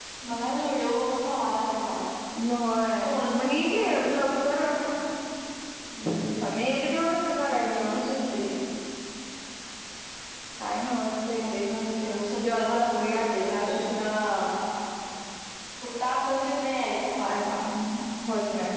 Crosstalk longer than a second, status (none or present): present